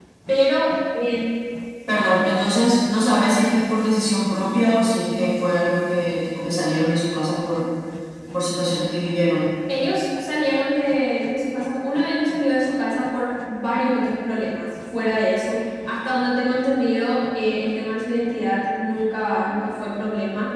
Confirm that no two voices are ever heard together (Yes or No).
Yes